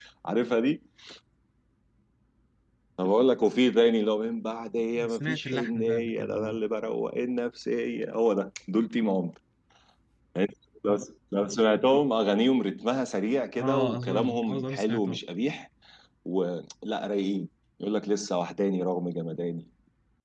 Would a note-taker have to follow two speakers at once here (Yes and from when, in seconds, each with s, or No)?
Yes, from 5.1 s